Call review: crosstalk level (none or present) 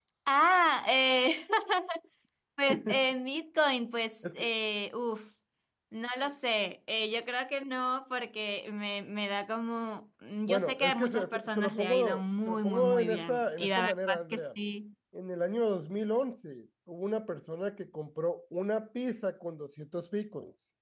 present